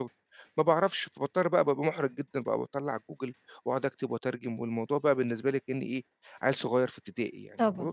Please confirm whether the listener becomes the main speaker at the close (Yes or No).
Yes